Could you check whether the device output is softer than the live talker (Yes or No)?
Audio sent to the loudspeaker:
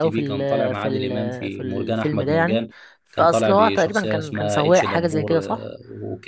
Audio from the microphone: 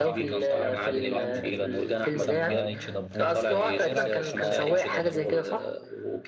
No